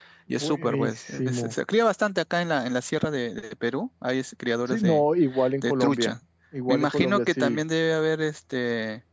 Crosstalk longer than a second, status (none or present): present